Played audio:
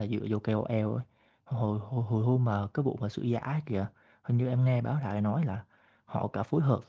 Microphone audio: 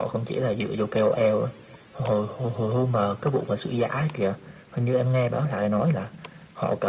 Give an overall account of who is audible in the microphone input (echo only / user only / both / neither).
echo only